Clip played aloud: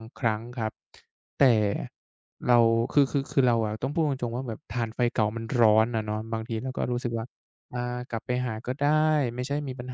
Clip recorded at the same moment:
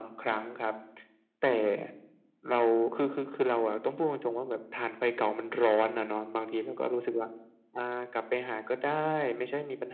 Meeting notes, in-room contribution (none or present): none